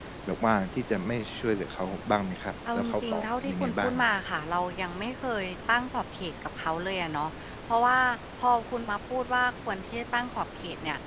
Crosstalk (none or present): present